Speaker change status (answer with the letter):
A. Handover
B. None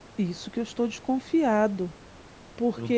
A